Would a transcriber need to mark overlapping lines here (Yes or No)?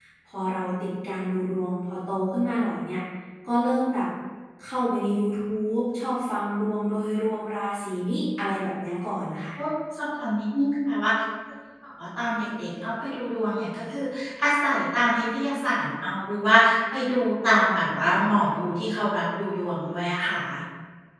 No